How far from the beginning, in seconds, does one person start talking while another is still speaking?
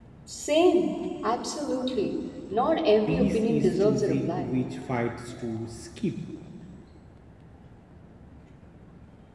3 s

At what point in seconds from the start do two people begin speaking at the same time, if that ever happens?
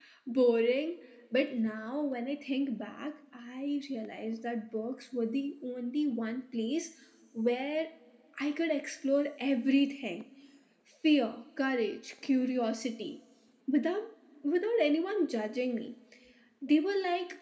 none

